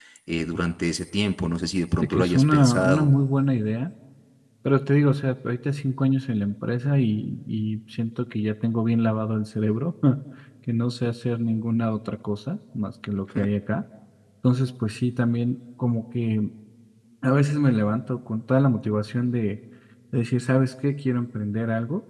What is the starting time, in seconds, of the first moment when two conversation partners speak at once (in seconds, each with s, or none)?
1.9 s